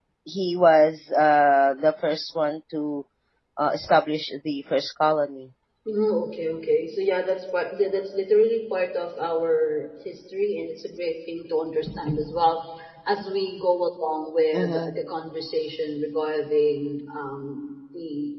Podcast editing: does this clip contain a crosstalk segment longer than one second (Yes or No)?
No